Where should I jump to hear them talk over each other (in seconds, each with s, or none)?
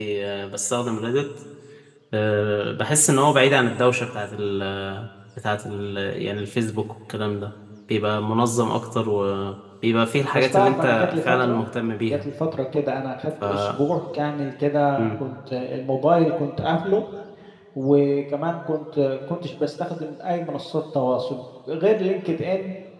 10.3 s